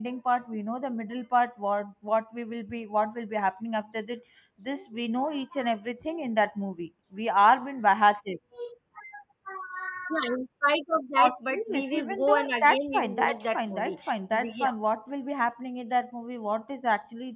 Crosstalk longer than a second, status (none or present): present